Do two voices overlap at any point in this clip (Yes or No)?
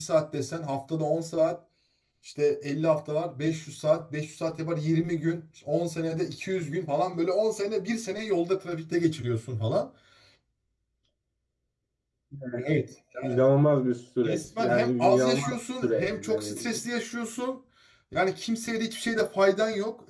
Yes